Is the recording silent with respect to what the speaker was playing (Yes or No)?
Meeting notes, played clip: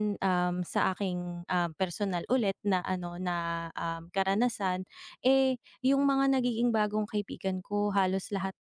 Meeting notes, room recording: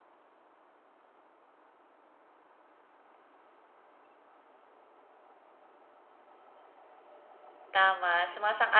Yes